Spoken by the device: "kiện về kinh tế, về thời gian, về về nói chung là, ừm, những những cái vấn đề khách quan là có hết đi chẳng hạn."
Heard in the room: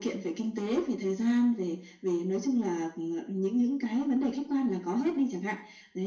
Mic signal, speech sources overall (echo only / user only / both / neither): echo only